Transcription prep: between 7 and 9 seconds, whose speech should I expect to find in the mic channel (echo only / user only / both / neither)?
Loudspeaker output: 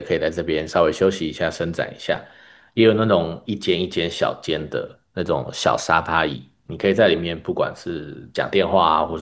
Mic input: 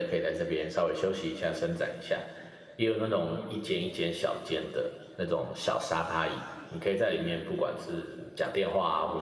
echo only